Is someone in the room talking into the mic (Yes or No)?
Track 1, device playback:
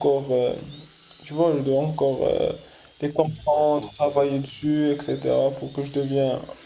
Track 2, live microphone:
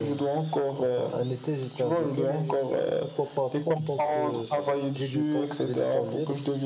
Yes